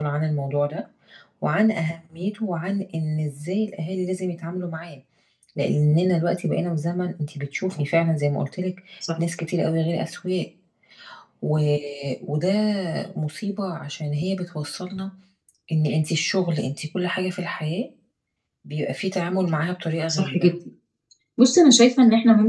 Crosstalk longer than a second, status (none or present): none